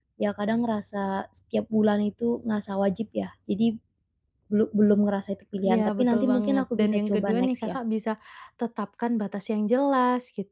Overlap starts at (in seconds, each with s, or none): 5.6 s